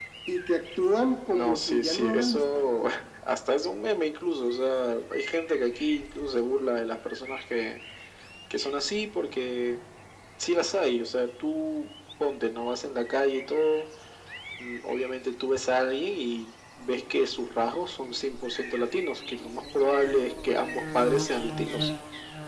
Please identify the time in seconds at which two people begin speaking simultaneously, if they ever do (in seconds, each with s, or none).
1.3 s